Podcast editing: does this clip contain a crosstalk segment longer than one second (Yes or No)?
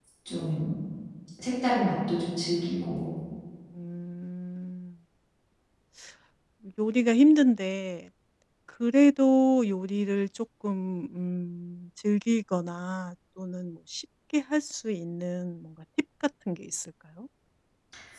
No